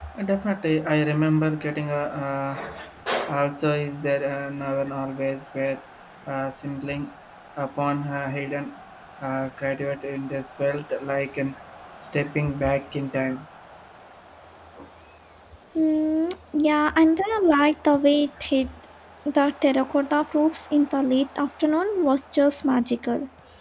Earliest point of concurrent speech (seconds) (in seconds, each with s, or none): none